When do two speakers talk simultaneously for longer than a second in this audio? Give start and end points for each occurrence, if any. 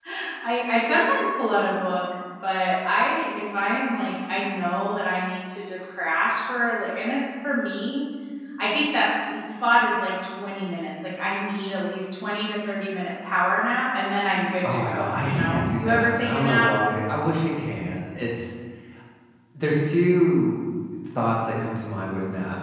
14.7-16.7

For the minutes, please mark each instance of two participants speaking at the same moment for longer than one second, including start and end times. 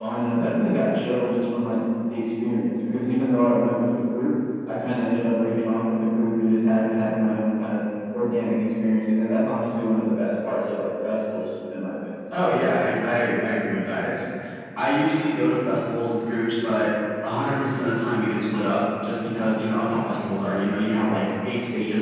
none

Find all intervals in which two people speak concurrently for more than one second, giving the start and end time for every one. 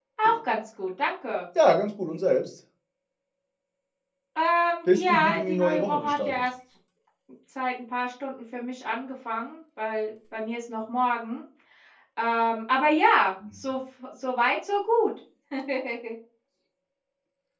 4.9-6.5

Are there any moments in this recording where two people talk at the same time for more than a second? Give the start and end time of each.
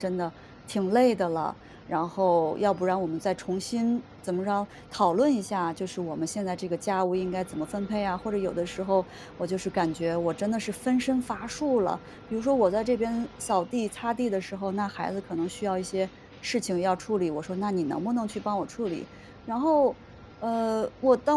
none

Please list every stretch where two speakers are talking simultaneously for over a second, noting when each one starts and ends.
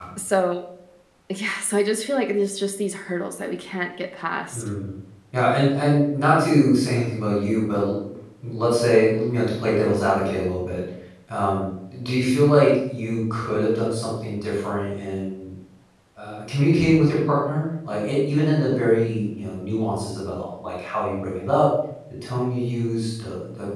none

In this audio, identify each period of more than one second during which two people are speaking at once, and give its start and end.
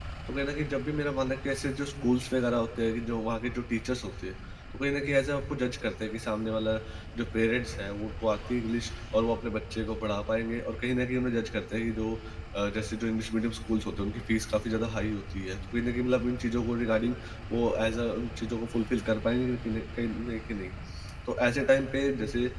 none

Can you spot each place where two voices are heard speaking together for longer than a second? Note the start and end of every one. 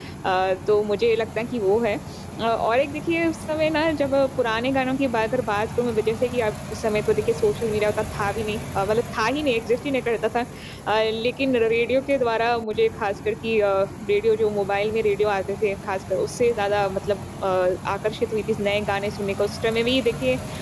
none

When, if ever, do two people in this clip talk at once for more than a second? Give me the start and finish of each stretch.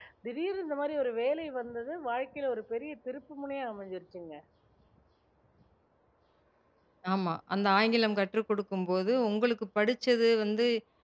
none

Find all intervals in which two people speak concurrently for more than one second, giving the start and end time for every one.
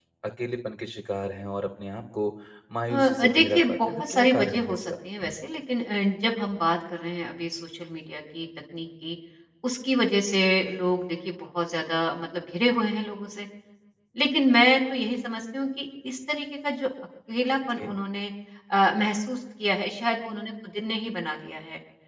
2.9-4.9

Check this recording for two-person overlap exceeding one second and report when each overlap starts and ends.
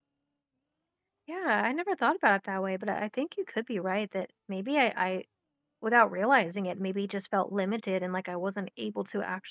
none

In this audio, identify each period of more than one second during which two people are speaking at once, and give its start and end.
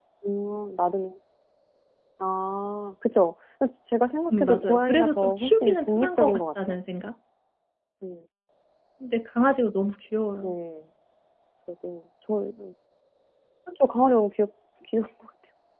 4.3-6.8

